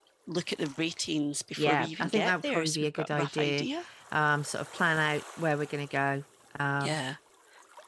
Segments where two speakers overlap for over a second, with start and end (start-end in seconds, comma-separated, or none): 1.6-3.7